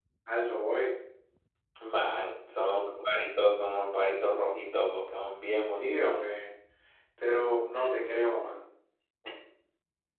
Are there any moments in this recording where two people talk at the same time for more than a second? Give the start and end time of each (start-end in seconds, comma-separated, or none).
none